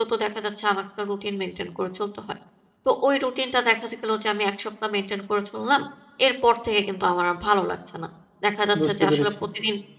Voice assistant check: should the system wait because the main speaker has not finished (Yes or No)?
Yes